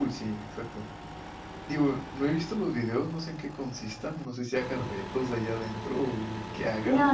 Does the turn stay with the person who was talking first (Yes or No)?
No